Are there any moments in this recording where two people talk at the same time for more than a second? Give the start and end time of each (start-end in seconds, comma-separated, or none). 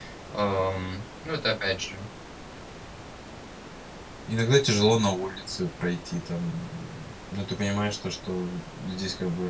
none